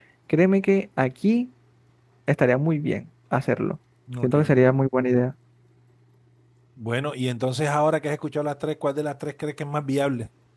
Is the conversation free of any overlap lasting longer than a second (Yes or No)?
Yes